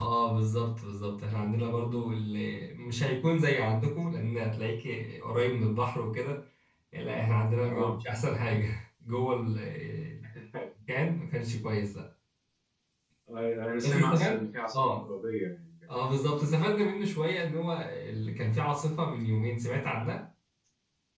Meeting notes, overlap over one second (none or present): present